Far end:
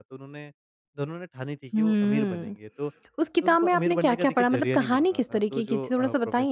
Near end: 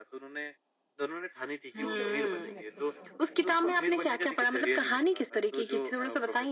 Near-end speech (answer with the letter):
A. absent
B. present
B